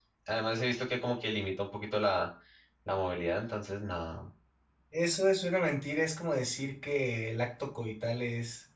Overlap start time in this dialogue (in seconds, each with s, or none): none